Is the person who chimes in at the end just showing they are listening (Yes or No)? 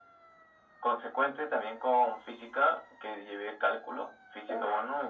Yes